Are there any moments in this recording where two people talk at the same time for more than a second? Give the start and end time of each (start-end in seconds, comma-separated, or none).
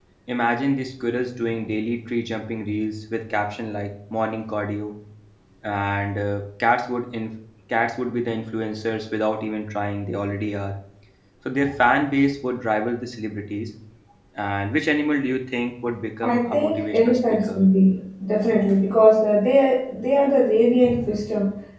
16.2-17.6